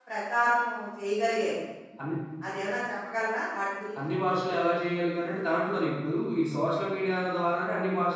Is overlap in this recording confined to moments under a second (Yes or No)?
Yes